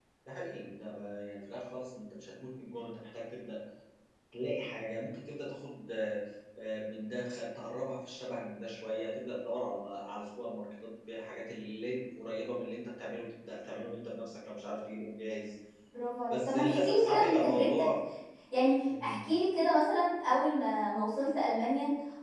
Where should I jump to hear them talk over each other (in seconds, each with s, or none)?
16.3 s